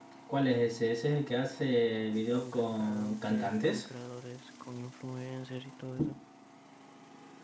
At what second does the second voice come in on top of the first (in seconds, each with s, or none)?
2.4 s